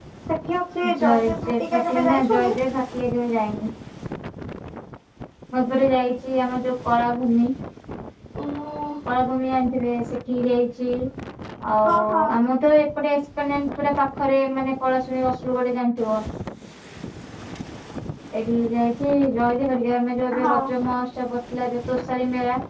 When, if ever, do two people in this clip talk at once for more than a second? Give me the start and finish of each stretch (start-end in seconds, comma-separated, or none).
1.0-2.6